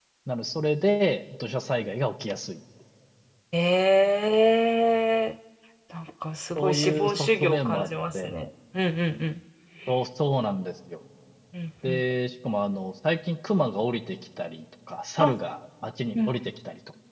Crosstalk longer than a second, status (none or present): present